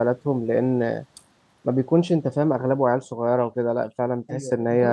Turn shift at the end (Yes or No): Yes